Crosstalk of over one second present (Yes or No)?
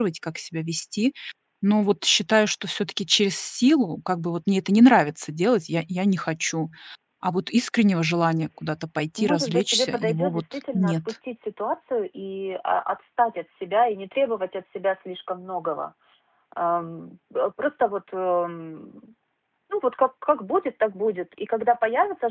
Yes